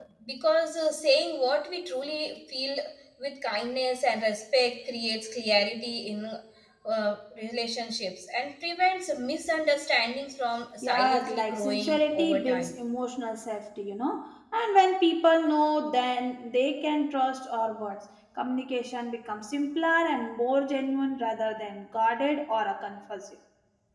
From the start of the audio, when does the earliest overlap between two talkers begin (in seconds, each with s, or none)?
10.8 s